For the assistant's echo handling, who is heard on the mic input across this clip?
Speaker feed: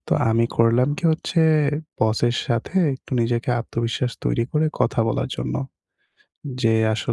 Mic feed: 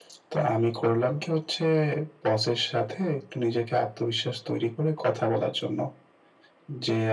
echo only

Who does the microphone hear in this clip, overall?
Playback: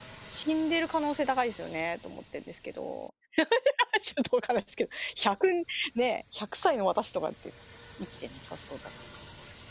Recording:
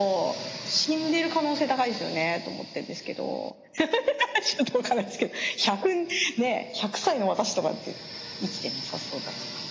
echo only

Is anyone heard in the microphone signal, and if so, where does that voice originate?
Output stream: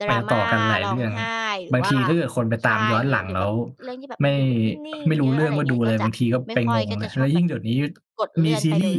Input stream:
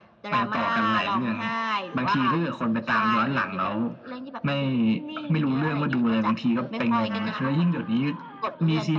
both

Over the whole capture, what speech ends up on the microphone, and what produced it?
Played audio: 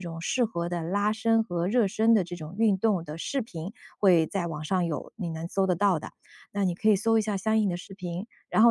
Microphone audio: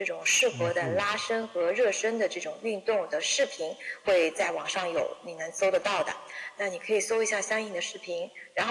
both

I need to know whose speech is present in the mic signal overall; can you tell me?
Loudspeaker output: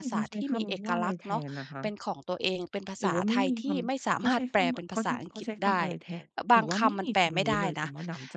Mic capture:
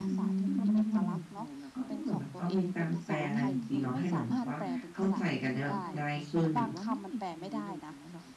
both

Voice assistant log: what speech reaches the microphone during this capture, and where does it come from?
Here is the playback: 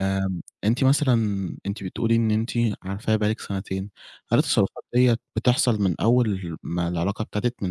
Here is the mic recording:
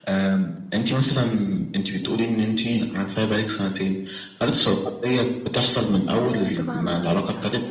both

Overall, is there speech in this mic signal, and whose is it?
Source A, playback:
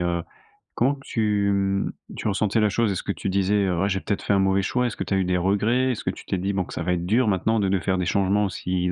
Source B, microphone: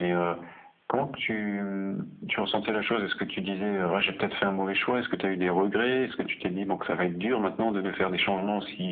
echo only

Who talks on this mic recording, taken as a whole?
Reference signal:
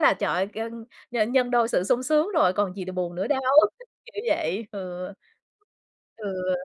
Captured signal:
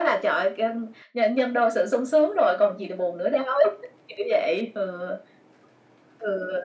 echo only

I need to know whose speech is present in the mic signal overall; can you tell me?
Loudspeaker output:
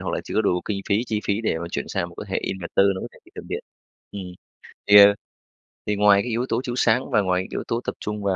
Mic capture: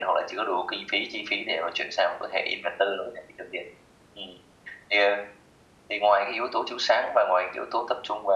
echo only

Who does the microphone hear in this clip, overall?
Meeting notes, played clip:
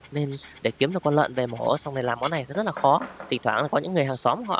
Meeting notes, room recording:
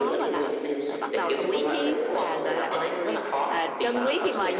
both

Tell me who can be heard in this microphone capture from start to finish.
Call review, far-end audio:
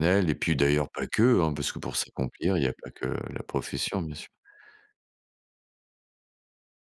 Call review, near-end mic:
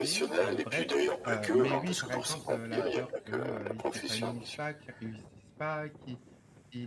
both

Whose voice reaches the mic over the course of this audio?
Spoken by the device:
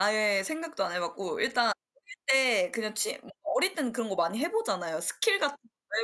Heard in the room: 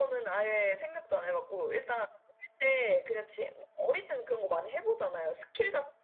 echo only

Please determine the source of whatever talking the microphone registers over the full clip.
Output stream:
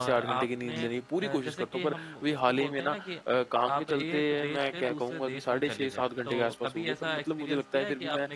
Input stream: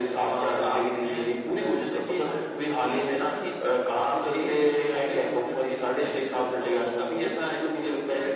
echo only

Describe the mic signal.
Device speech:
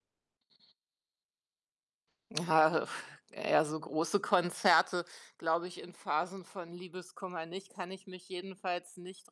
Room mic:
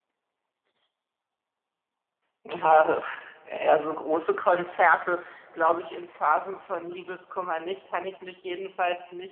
echo only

